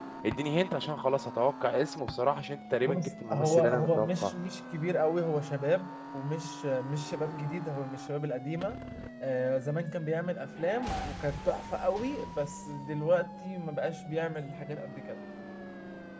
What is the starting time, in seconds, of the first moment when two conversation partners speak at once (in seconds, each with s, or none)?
2.8 s